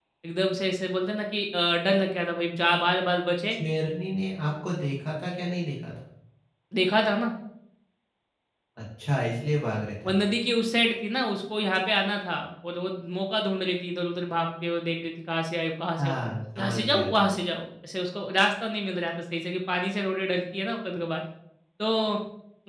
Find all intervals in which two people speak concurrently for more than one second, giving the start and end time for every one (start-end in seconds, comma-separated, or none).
none